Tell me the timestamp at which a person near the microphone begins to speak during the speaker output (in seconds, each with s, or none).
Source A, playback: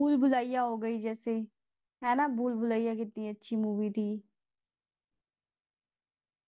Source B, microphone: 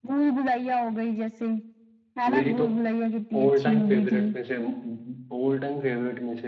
2.3 s